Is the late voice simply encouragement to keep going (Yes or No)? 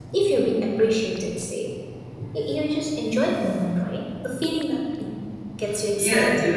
No